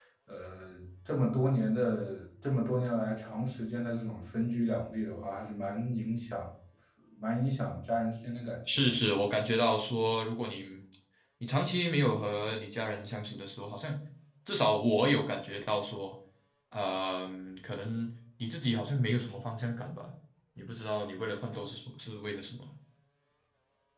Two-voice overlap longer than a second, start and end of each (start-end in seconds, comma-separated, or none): none